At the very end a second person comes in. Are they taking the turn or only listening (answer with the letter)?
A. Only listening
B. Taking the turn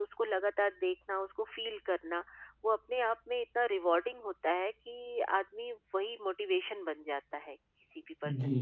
B